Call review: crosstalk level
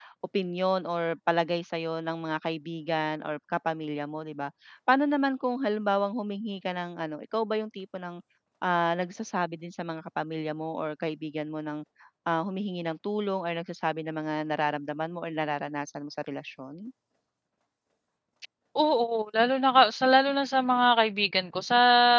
none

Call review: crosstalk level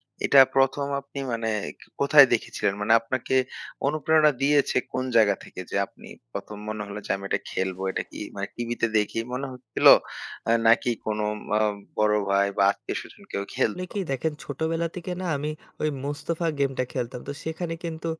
none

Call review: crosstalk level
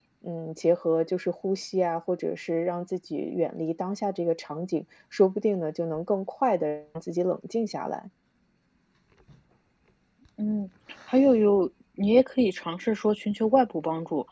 none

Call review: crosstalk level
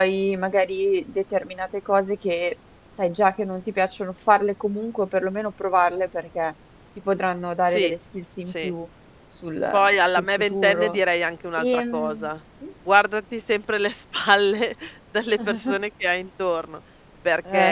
present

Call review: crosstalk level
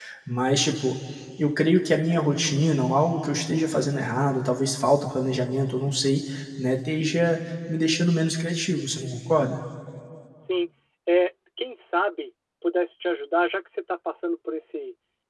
none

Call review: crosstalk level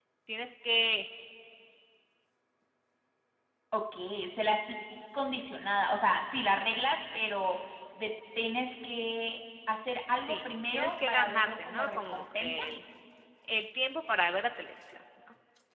present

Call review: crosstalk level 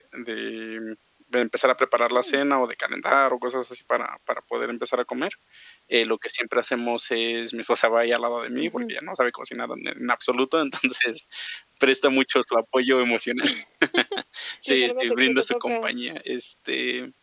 present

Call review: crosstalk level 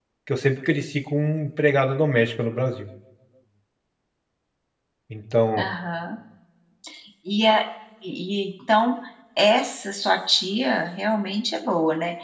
none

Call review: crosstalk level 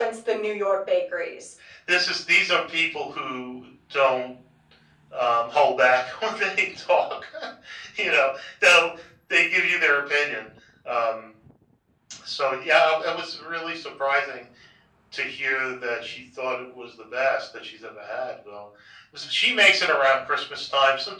none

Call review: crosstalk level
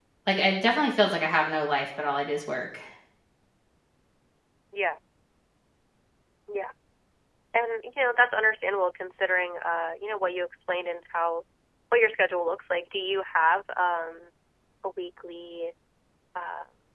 none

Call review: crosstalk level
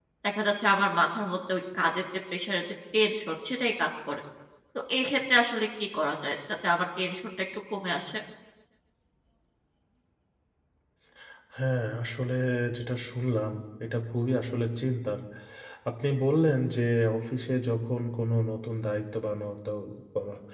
none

